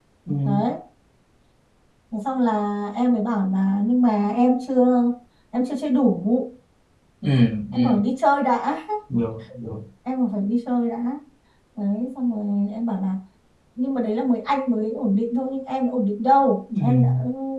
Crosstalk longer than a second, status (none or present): none